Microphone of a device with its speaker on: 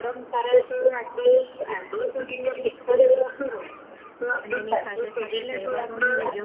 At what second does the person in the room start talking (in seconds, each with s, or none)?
4.4 s